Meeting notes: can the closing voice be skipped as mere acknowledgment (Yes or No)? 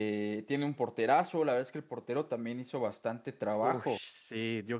No